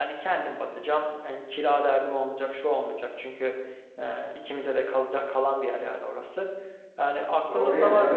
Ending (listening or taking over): taking over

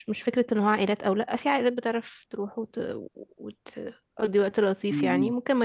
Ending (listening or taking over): listening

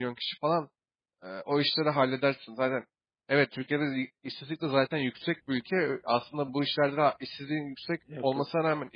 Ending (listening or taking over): listening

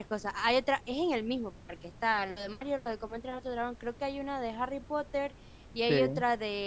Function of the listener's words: listening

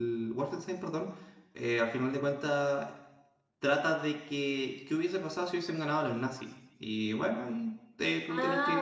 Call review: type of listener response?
taking over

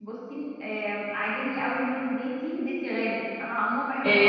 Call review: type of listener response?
taking over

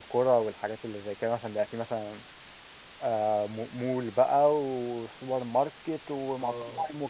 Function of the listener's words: taking over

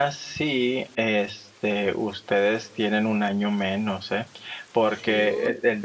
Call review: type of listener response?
listening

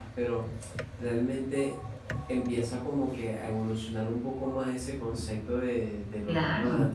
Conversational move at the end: listening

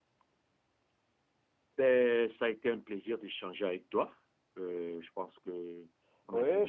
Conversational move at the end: taking over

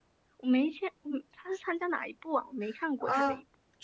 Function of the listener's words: taking over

